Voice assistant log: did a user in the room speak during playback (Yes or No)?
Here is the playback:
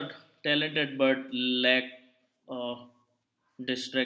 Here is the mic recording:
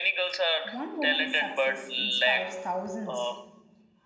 Yes